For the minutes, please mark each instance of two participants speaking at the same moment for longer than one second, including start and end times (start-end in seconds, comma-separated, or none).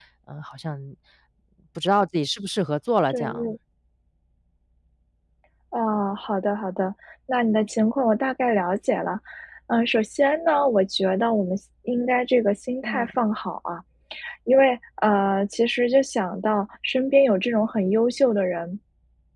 none